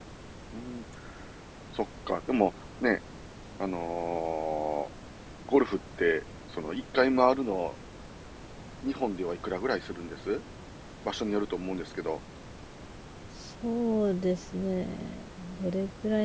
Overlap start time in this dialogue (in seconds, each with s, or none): none